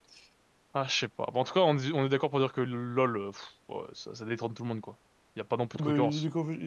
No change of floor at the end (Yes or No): No